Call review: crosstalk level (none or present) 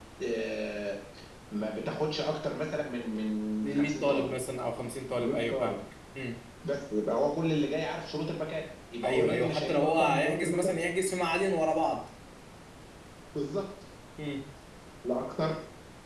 present